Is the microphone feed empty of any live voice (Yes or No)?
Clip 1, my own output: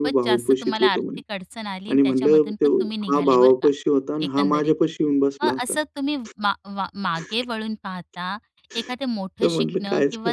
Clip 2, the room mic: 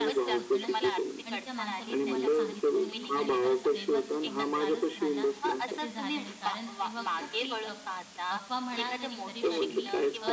No